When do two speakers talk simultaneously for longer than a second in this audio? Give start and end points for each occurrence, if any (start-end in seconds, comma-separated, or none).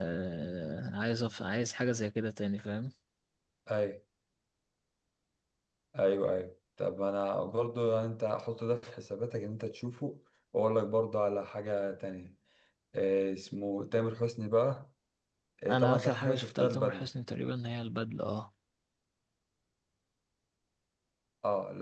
15.7-17.1